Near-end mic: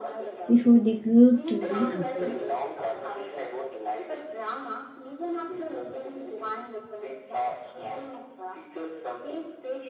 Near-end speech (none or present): present